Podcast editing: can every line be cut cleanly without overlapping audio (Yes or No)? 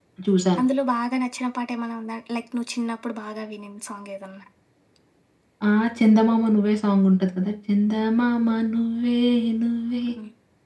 Yes